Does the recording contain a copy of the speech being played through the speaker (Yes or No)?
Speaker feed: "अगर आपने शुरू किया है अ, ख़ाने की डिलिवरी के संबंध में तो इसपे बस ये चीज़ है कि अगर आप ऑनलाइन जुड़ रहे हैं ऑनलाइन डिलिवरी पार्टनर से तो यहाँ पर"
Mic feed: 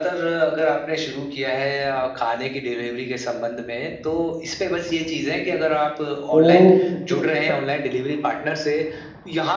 Yes